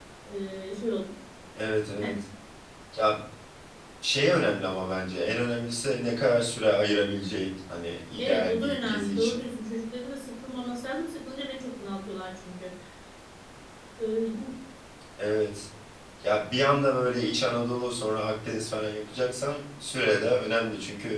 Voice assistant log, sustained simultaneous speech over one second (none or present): present